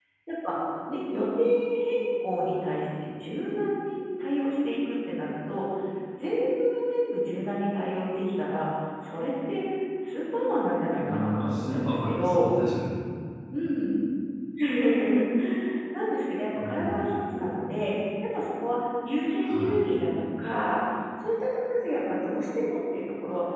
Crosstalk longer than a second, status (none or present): present